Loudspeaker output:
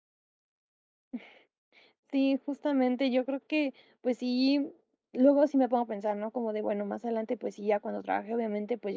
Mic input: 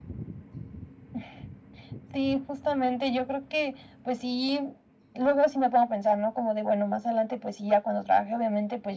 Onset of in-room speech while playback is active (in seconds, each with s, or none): none